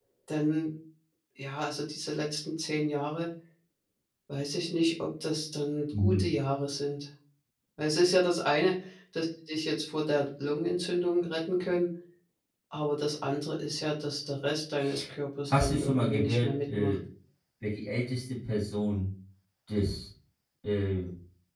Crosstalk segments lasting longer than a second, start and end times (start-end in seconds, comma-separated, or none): 15.5-16.9